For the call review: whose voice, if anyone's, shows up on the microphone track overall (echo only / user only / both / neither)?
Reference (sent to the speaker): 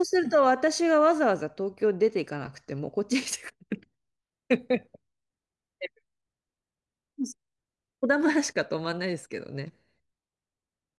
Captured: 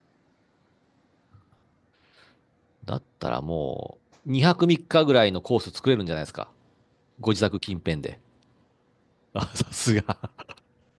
user only